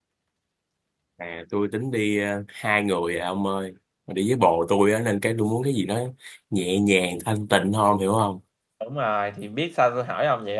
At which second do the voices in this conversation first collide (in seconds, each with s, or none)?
none